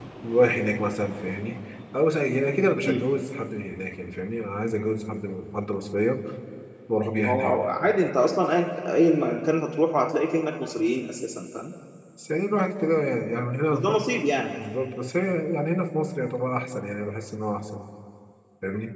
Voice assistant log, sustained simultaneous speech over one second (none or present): none